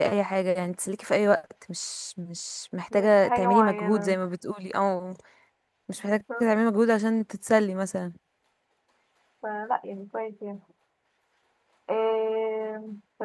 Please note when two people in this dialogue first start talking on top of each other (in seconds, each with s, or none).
2.9 s